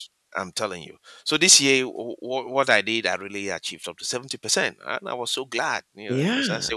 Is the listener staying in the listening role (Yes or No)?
No